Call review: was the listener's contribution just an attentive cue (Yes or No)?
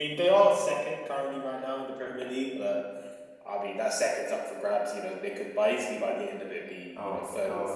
No